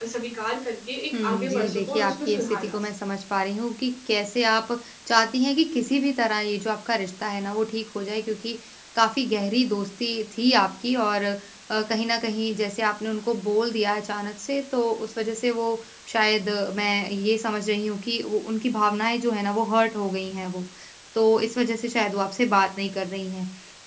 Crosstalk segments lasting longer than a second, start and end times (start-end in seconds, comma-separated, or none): 1.1-2.9